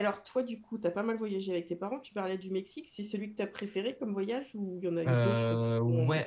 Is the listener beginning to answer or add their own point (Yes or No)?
Yes